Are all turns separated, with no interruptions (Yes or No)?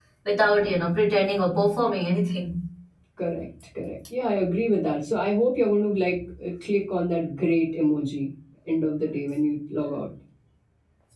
Yes